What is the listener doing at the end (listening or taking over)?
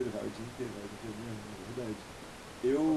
listening